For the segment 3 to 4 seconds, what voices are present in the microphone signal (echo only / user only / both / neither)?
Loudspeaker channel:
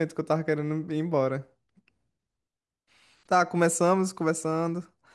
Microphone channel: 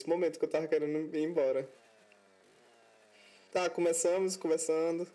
echo only